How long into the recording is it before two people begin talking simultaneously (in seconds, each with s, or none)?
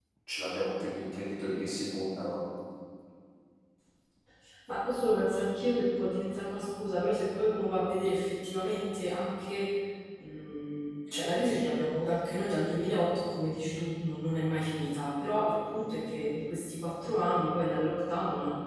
none